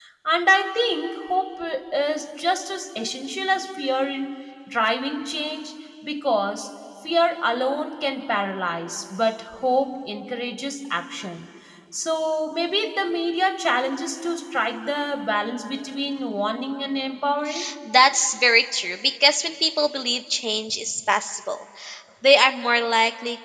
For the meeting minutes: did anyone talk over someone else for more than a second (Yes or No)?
No